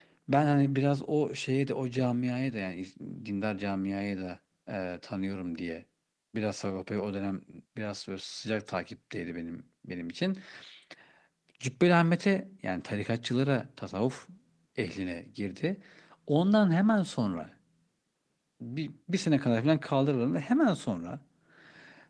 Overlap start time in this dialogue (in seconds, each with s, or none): none